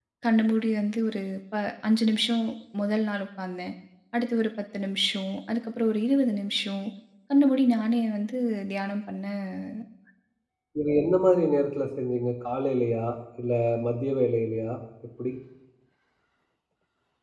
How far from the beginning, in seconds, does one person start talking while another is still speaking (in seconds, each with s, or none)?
none